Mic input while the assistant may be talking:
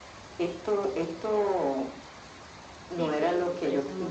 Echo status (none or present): present